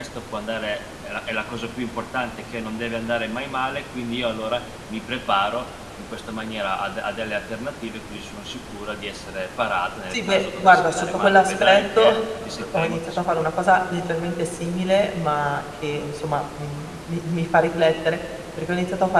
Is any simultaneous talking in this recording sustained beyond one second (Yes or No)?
Yes